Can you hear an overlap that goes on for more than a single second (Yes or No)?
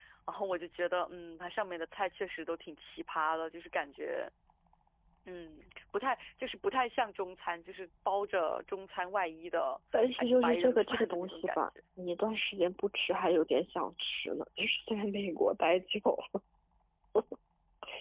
Yes